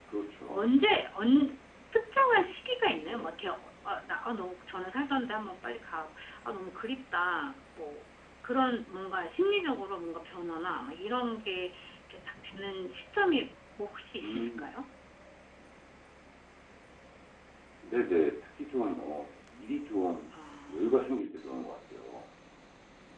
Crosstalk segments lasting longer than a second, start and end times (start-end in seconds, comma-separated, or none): none